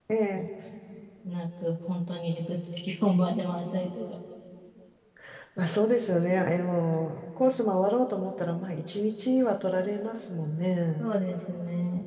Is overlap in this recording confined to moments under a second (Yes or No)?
Yes